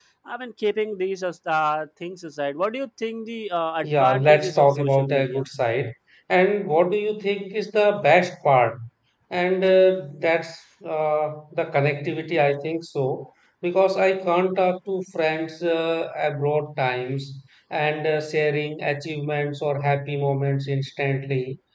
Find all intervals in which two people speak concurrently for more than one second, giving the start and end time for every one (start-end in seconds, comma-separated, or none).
3.8-5.4